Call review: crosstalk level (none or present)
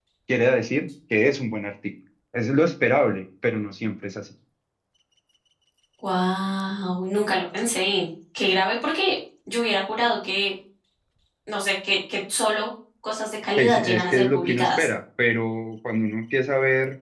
present